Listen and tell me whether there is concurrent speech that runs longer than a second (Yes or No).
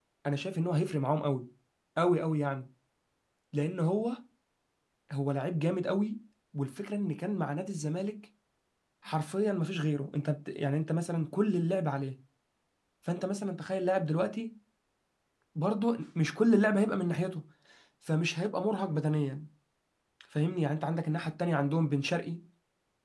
No